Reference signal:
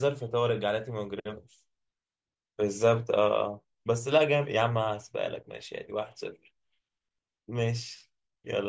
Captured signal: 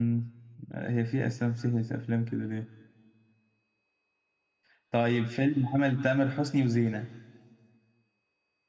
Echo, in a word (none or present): none